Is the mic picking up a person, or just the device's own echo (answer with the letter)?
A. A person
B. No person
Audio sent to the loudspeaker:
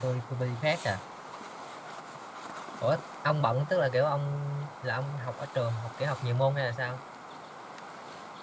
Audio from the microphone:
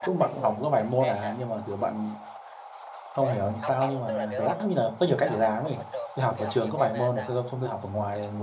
A